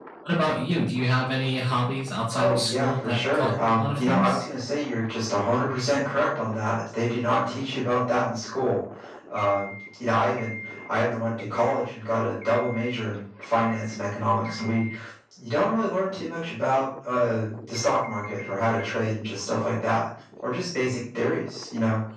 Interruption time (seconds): 2.3 s

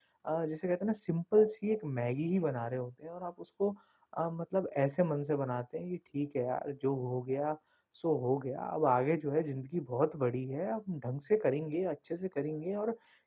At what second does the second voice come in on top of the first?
none

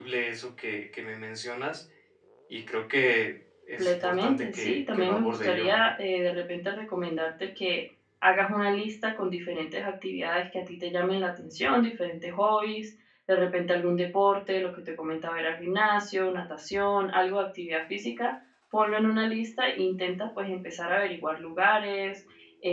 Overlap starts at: 3.8 s

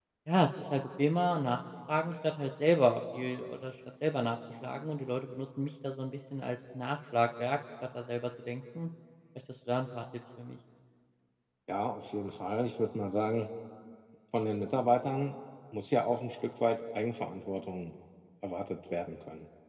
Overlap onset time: none

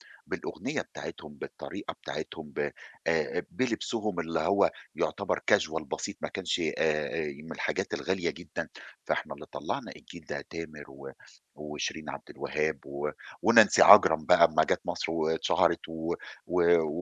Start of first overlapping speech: none

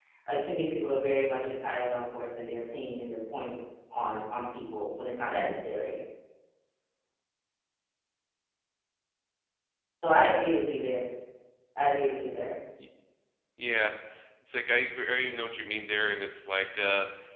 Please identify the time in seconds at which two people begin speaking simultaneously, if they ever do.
none

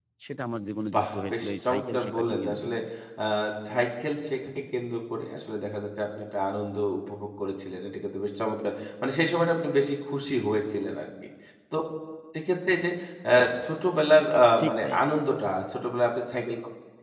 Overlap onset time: 0.9 s

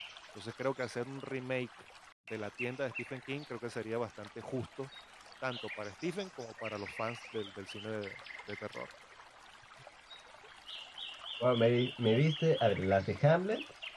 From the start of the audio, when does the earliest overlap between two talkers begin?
none

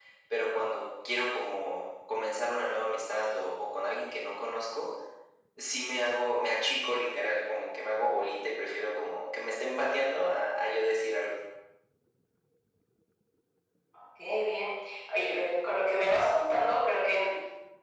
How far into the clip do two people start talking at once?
none

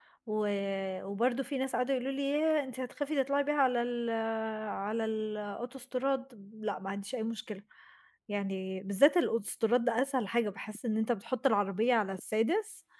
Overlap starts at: none

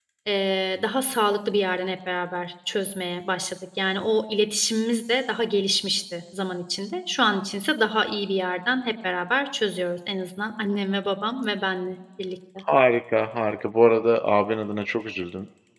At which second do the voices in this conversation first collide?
none

